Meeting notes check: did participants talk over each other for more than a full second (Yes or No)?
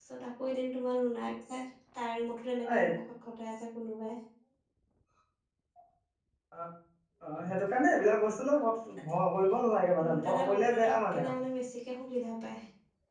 Yes